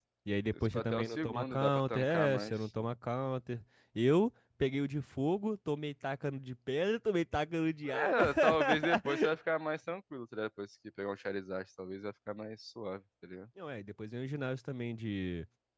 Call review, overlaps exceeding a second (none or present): present